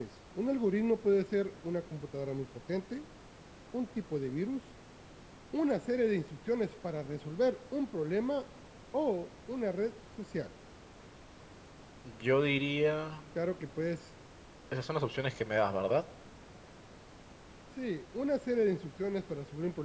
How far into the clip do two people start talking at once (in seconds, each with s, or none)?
none